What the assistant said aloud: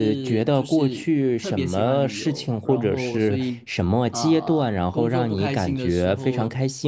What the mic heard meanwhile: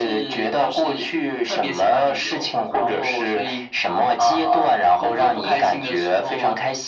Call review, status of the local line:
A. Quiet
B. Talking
A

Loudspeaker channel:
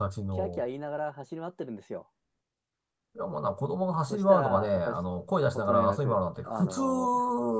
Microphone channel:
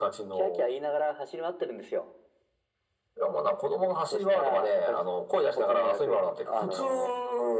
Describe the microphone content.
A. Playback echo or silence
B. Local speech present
A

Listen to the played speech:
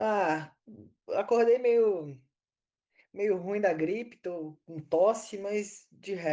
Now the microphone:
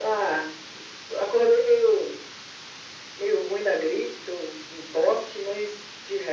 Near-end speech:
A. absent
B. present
A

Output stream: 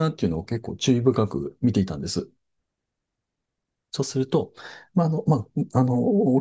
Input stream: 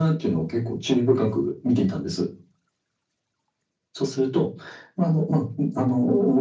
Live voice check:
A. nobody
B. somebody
A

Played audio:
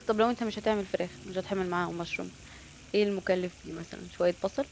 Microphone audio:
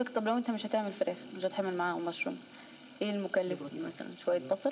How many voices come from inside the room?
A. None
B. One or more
B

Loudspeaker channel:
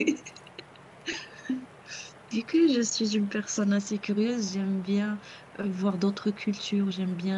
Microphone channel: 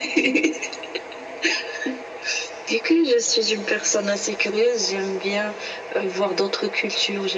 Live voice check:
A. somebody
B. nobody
B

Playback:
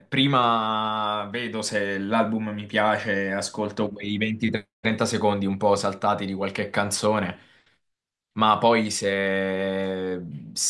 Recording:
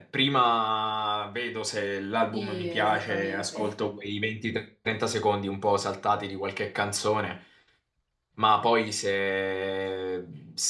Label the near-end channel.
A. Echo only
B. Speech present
B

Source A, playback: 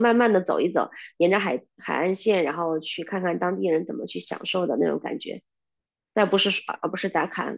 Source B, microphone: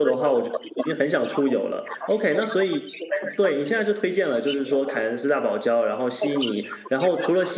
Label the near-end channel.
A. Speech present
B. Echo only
A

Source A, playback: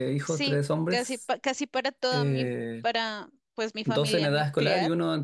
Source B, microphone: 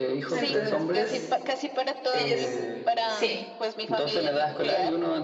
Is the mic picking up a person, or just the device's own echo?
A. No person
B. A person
B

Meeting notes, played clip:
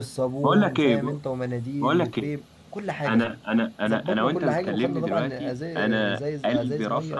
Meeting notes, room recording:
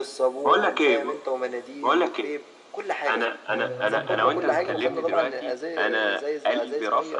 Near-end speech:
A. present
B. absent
A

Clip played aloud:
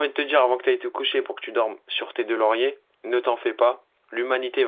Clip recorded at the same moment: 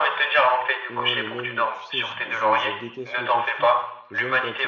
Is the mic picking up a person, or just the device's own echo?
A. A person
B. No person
A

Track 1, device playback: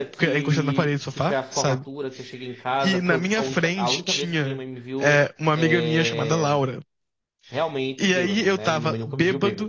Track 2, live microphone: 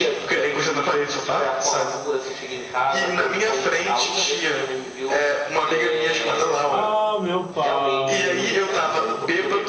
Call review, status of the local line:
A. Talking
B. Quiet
A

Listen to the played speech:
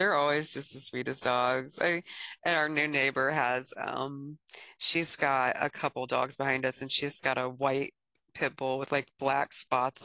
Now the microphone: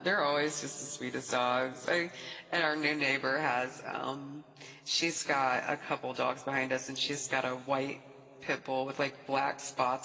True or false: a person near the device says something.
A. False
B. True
A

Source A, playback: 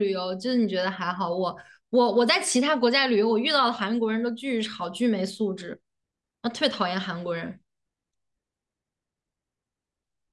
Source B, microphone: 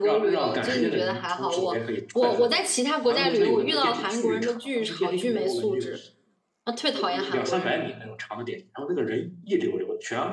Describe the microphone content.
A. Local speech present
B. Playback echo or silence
A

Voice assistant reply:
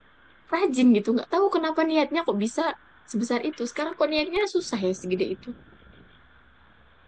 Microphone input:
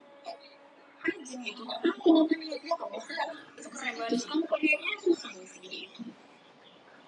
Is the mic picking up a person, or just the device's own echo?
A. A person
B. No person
A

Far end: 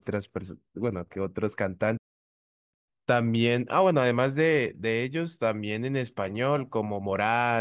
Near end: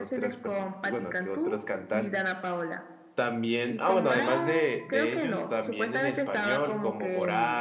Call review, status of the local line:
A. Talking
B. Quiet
A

